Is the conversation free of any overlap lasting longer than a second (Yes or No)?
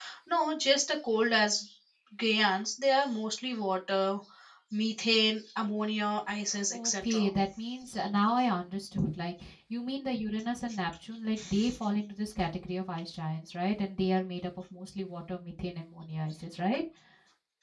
Yes